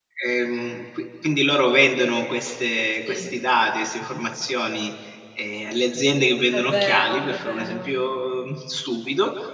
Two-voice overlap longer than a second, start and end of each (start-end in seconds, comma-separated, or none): 6.5-7.9